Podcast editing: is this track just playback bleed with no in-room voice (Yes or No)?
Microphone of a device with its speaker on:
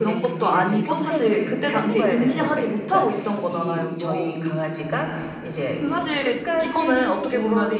No